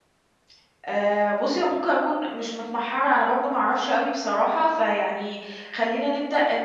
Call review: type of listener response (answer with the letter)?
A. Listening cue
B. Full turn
B